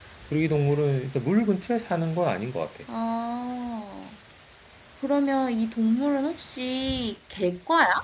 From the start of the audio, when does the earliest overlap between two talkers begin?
none

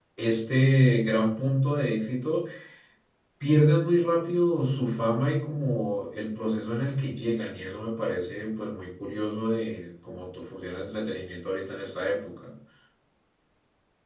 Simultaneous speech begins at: none

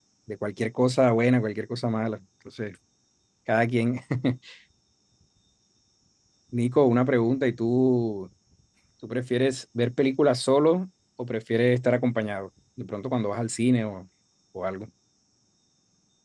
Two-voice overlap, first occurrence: none

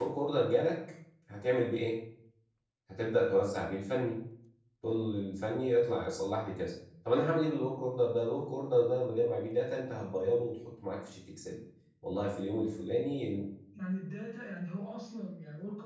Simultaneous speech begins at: none

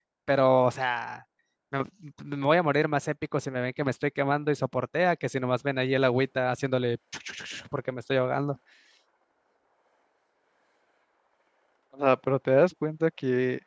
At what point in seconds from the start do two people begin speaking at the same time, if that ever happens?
none

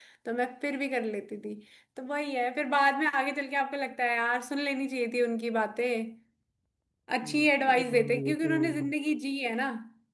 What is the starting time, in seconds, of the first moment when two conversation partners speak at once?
7.2 s

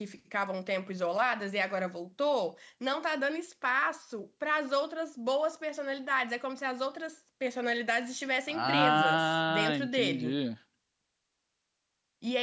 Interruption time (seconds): 8.5 s

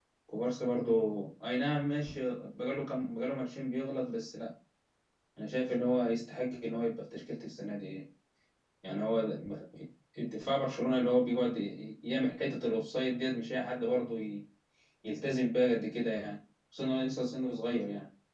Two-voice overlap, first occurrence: none

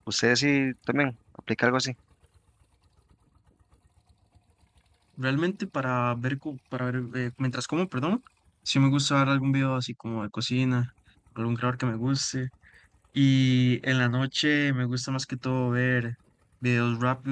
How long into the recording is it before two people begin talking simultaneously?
none

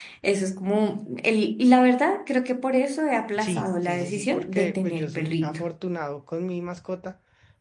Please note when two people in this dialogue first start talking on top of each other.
3.4 s

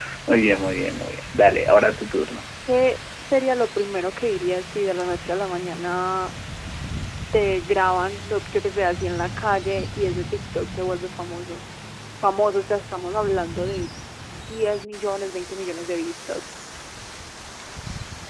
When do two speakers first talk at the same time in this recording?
none

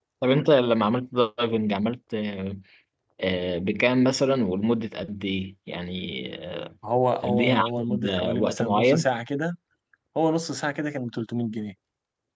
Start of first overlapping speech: 7.2 s

